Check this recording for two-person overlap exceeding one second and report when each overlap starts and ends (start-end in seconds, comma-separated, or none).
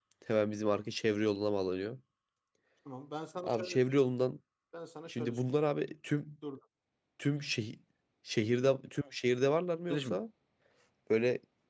none